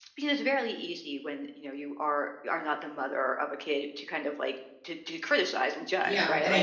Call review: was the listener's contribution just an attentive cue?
No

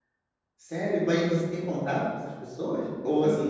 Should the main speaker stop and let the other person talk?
No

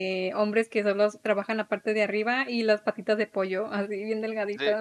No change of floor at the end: No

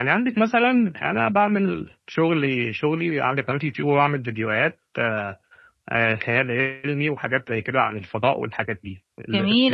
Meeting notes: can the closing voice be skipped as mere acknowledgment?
Yes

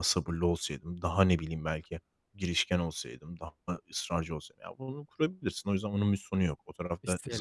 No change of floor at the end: Yes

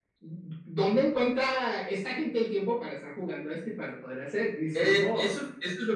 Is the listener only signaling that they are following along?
No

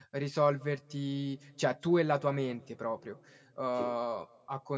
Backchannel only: Yes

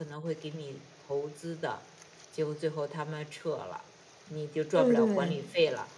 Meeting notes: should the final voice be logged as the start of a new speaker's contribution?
No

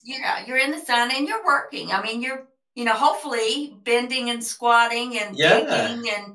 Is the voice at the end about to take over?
No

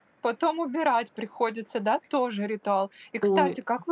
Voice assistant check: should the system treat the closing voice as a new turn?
No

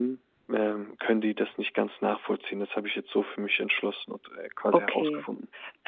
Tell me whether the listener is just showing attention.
No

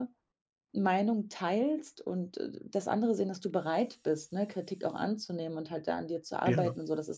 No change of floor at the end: Yes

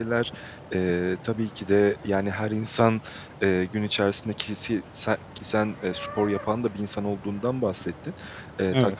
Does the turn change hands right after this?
No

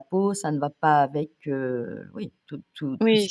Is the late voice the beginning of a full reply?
Yes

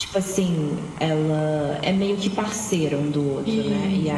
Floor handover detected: No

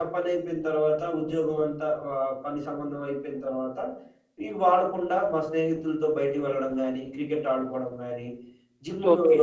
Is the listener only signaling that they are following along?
Yes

